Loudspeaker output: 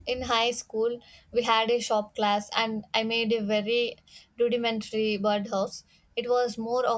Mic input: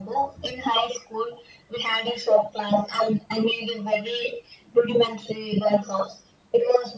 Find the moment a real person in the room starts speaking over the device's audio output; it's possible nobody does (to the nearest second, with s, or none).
none